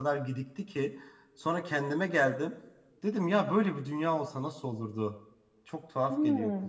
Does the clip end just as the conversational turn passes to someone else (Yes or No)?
Yes